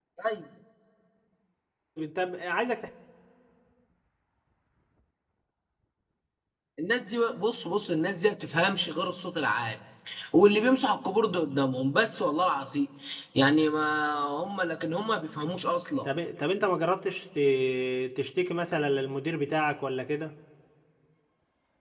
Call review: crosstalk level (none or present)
none